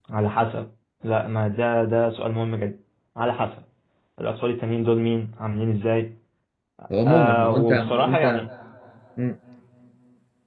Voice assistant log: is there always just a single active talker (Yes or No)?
No